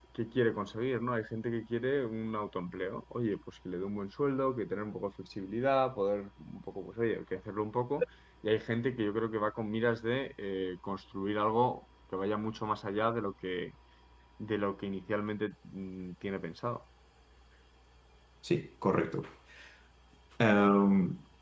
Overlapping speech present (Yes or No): No